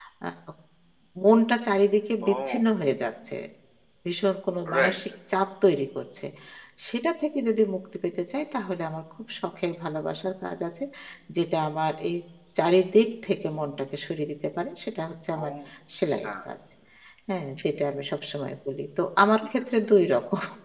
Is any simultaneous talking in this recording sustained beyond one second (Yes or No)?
No